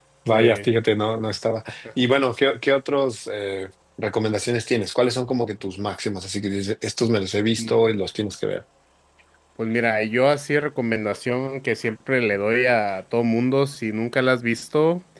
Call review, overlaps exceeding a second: none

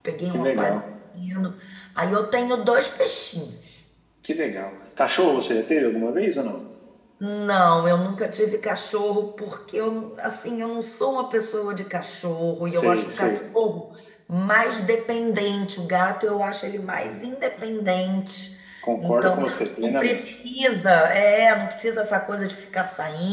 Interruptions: present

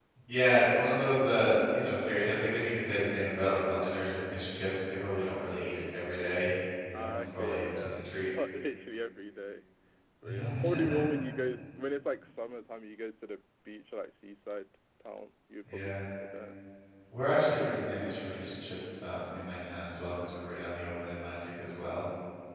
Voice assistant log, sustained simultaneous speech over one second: present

